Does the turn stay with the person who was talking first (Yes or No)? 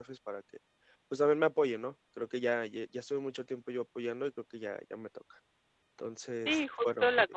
No